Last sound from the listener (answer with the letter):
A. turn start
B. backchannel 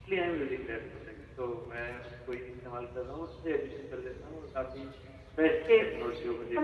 A